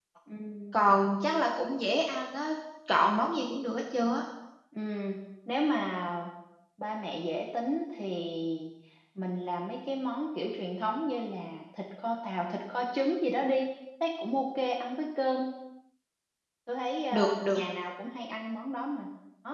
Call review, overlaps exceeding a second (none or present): none